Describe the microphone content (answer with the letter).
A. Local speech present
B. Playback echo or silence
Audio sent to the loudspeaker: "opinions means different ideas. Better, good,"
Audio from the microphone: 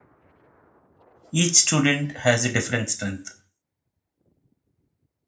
A